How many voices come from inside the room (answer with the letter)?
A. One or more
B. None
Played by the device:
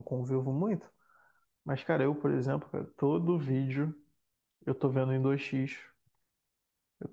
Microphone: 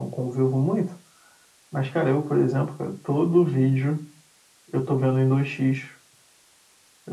B